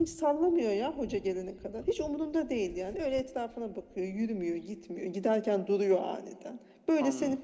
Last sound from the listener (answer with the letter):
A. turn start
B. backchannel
B